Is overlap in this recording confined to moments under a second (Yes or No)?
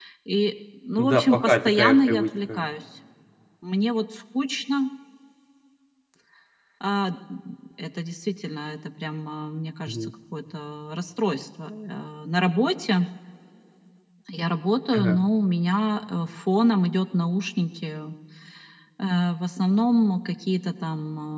No